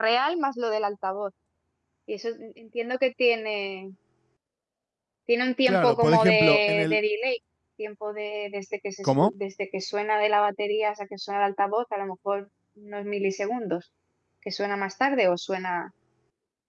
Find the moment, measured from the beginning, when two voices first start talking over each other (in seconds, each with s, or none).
5.7 s